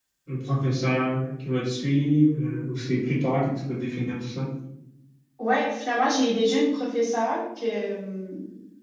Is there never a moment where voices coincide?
Yes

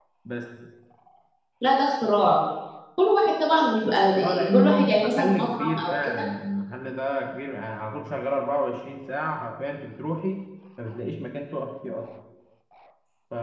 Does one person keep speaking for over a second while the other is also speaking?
Yes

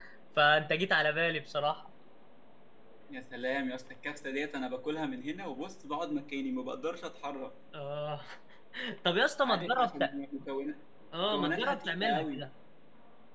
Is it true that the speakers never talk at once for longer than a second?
No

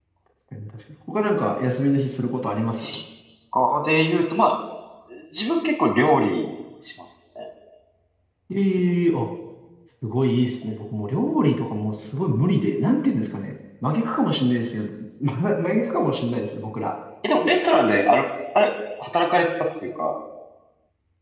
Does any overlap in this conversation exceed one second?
No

